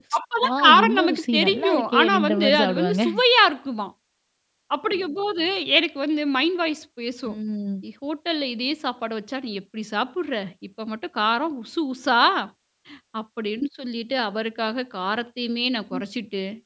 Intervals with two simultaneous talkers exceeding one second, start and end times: 0.5-3.0

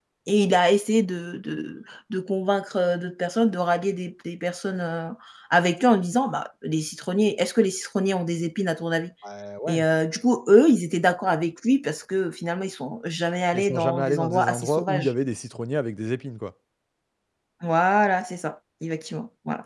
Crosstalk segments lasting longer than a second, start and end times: 13.5-15.1

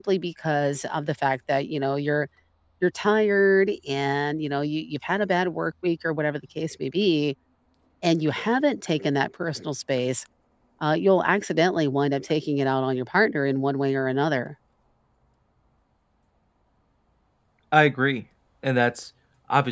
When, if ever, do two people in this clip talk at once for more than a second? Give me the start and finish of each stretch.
none

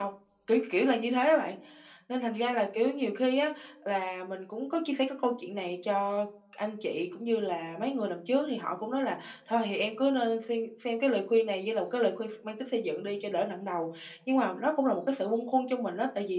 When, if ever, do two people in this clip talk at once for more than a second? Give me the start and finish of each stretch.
none

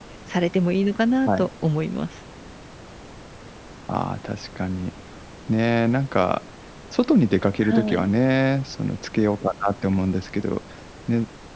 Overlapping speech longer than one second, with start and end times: none

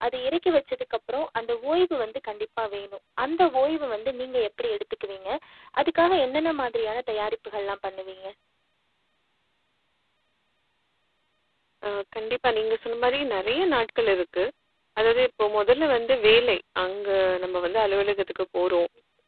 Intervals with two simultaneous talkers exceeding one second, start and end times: none

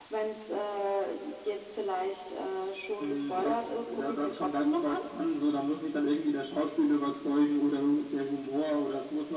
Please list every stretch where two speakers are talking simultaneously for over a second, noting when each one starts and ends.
3.0-5.0

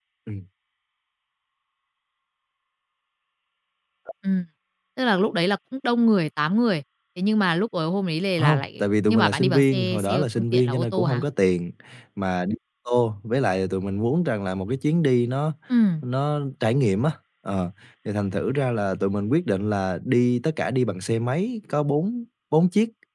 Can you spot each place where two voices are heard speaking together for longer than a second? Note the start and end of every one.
8.4-11.2

